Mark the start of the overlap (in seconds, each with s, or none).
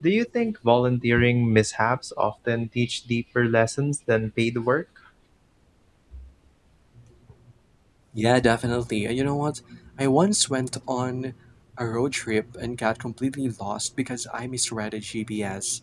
none